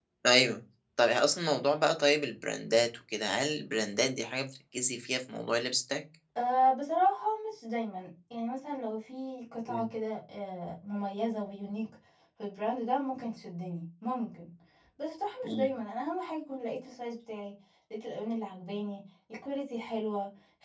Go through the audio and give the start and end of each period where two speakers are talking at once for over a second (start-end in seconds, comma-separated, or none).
none